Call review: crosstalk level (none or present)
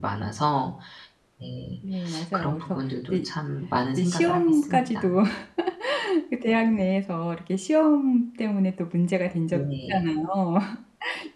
present